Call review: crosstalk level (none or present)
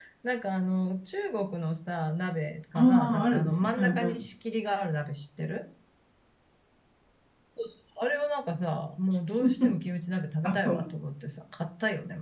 present